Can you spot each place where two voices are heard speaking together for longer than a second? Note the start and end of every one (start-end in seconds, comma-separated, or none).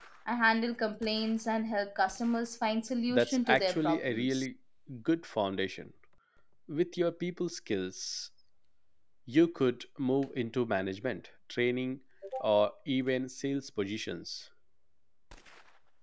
3.1-4.5